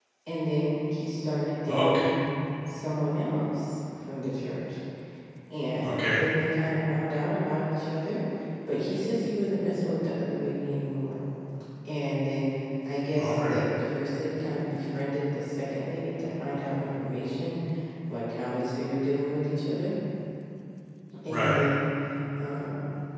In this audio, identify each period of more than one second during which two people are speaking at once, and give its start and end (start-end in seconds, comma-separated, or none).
none